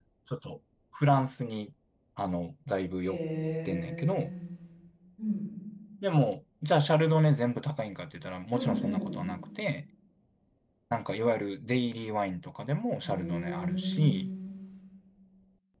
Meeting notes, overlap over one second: present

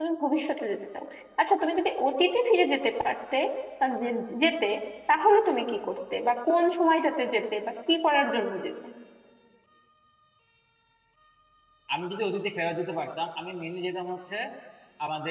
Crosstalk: none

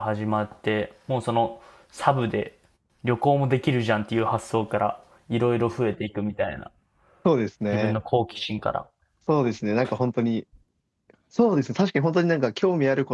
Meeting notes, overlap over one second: none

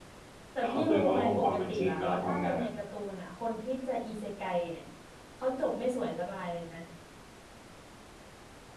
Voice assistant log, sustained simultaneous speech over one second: present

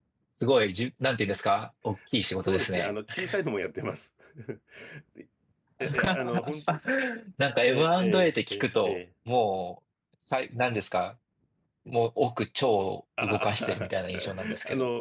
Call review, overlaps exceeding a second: present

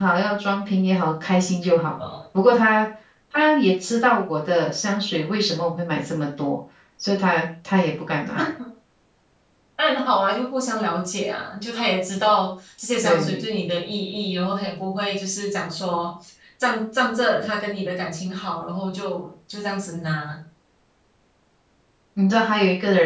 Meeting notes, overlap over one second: none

